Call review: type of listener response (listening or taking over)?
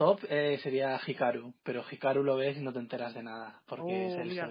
taking over